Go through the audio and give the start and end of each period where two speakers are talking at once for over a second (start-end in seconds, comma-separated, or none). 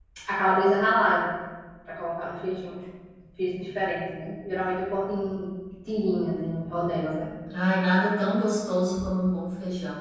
none